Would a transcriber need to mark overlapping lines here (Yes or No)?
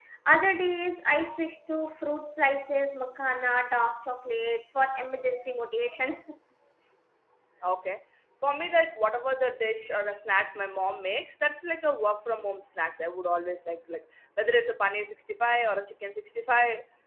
No